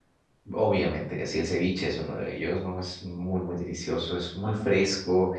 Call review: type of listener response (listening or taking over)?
listening